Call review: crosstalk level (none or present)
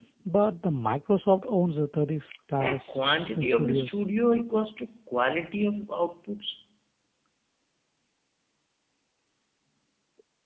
present